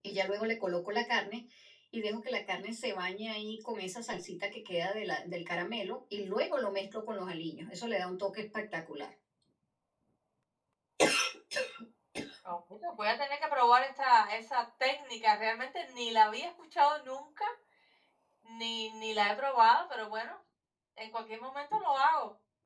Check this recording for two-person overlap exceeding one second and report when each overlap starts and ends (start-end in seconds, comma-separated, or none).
none